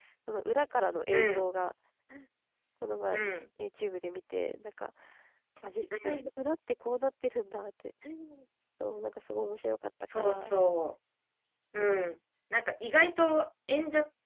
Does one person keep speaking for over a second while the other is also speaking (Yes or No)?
No